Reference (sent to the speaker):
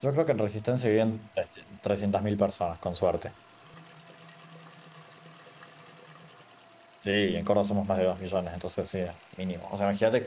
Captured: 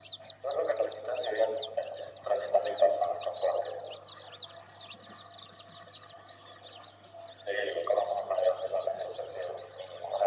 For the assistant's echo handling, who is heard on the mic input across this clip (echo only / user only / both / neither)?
echo only